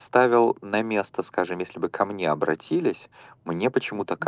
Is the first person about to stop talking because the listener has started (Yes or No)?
No